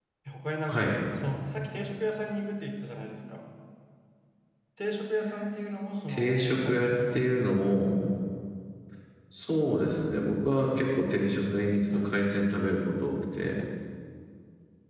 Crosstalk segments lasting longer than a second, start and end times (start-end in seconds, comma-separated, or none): 6.1-7.6